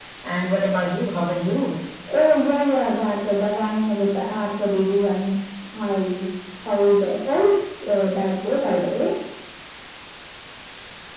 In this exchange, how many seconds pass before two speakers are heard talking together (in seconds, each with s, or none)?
none